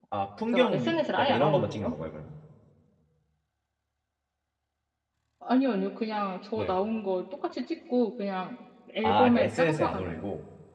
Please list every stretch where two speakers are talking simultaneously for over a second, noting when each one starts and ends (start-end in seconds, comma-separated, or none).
0.5-1.9, 9.0-10.2